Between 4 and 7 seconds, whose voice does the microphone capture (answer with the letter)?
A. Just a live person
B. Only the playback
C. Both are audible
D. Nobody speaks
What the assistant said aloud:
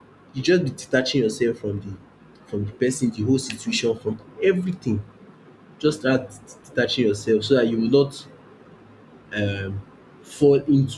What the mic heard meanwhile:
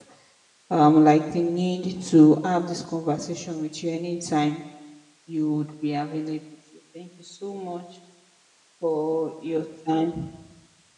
A